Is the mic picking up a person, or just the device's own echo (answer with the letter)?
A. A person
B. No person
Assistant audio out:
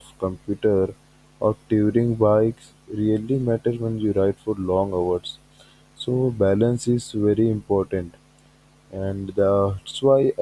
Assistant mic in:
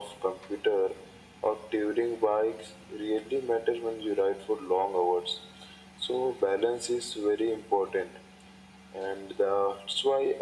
B